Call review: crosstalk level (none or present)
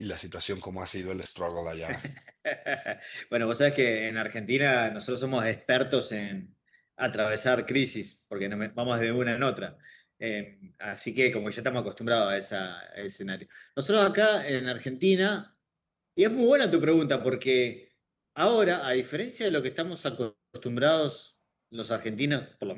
none